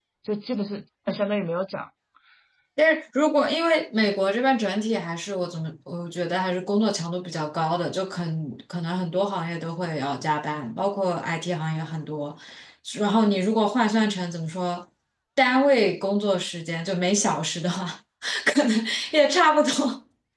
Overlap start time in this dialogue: none

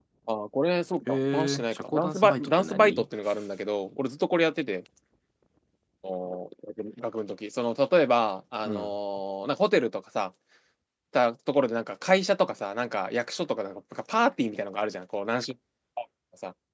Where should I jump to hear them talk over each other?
1.1 s

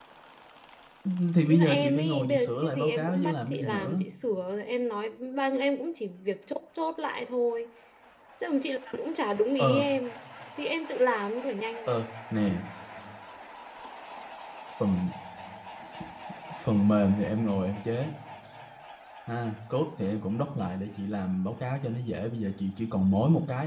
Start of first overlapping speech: 1.4 s

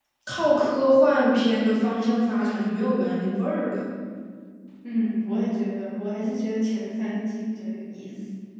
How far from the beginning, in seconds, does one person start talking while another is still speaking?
none

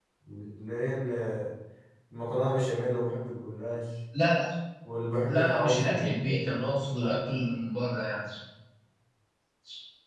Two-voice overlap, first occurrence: 5.3 s

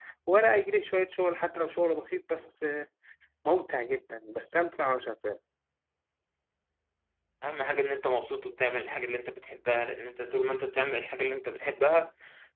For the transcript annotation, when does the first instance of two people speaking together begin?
none

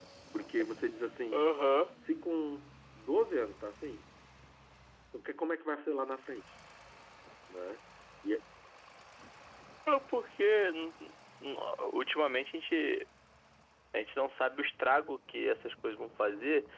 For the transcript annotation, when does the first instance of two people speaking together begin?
none

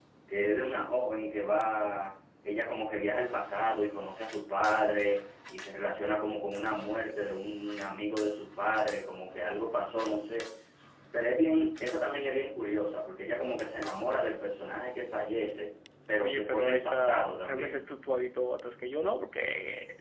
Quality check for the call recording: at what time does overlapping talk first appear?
16.2 s

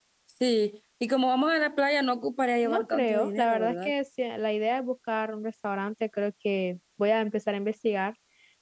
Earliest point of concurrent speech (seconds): 2.6 s

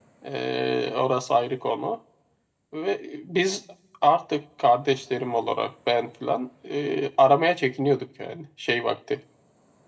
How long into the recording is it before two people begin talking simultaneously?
none

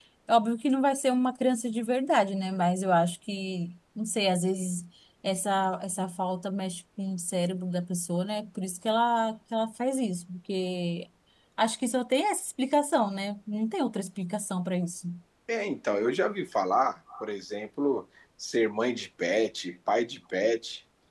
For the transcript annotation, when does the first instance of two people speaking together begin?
none

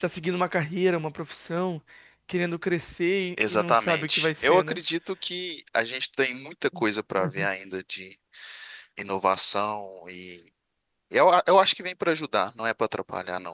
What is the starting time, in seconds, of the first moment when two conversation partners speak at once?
3.5 s

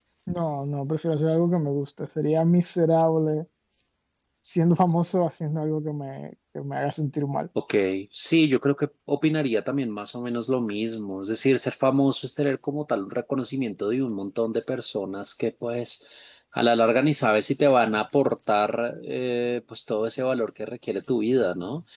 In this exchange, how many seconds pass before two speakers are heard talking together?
none

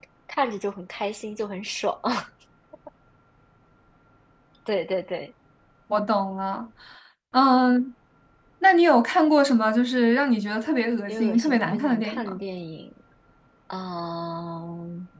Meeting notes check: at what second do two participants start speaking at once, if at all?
11.1 s

